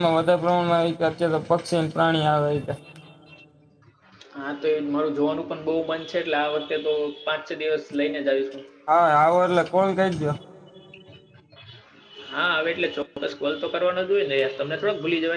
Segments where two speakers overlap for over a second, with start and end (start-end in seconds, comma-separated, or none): none